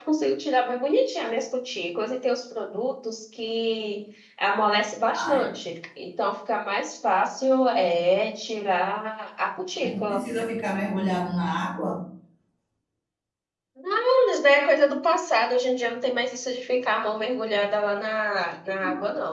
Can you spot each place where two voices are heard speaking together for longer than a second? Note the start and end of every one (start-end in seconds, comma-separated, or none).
none